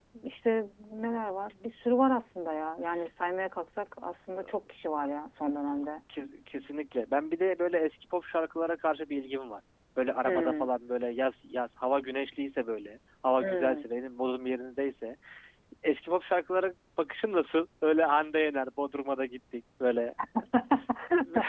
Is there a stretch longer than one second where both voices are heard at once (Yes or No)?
No